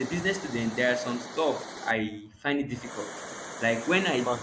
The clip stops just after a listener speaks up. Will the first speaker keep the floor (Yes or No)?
Yes